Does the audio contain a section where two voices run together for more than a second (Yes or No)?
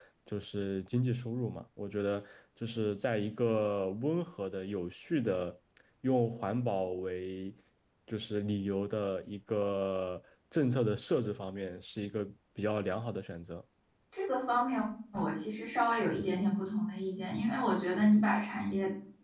No